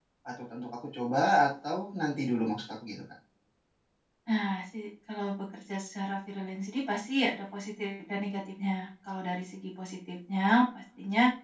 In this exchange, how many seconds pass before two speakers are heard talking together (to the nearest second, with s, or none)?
none